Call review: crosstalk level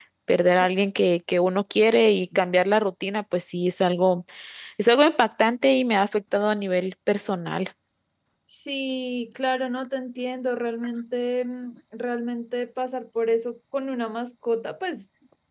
none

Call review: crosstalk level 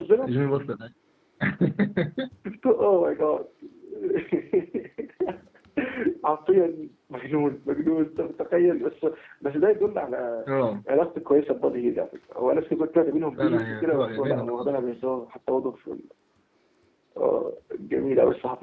present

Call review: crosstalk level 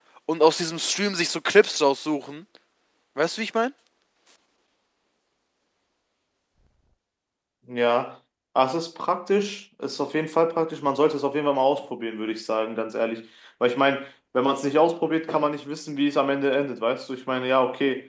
none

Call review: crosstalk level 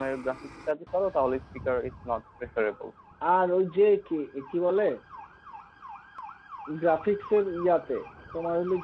none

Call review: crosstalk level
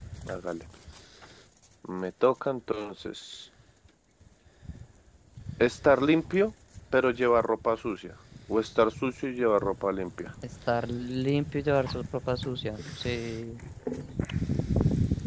none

